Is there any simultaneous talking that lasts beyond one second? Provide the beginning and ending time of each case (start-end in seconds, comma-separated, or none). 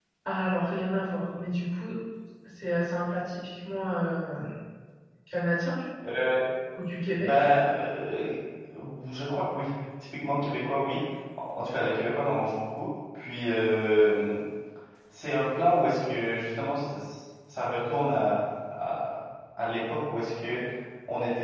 none